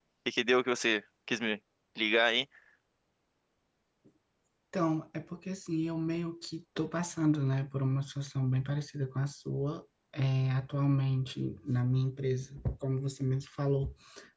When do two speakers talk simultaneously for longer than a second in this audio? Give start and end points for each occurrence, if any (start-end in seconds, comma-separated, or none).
none